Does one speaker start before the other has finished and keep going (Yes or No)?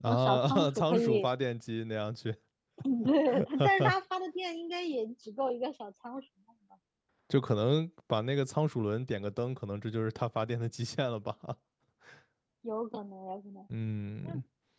Yes